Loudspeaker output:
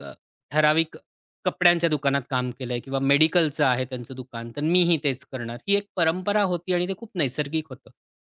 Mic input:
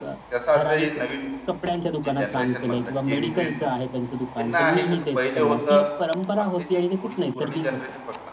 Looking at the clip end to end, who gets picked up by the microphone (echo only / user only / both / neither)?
both